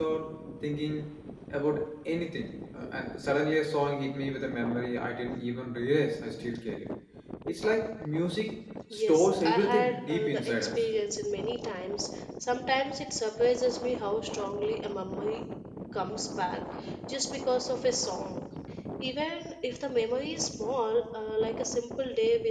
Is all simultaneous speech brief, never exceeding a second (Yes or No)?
No